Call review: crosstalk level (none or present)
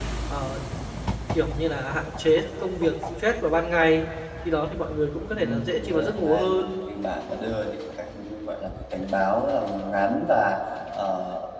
present